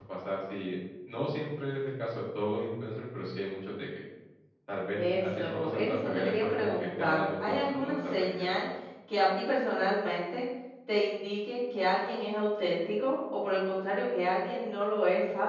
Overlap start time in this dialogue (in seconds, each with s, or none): 5.0 s